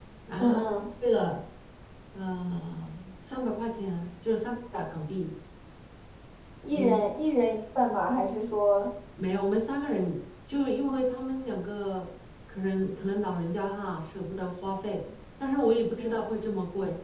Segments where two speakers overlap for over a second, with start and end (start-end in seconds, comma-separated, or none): none